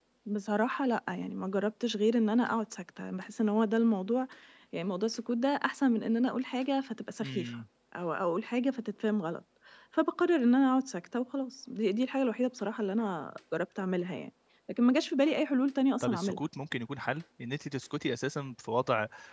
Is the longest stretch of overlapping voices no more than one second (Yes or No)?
Yes